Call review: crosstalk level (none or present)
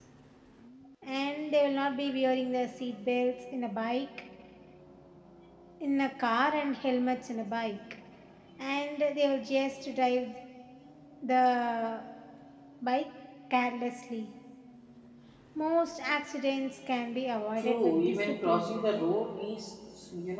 present